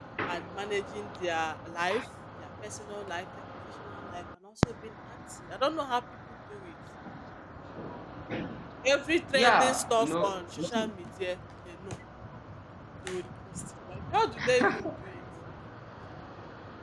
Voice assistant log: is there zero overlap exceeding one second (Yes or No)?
No